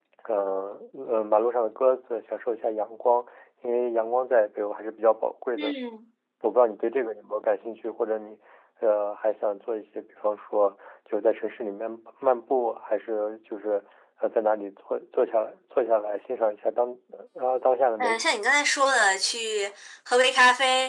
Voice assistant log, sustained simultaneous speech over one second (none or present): none